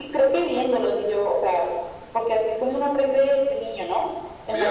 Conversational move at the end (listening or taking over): taking over